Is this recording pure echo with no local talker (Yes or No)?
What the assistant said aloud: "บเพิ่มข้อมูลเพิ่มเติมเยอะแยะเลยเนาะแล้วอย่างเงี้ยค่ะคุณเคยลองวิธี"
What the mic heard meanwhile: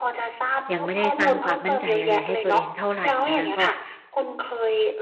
No